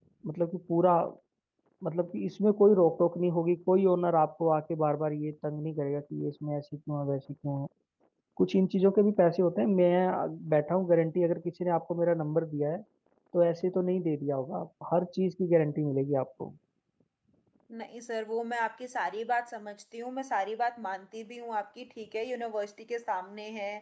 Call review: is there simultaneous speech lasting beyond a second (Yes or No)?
No